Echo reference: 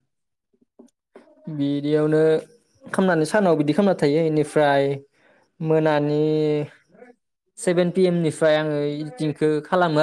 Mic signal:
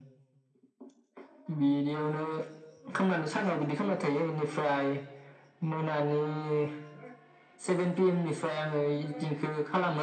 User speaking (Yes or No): No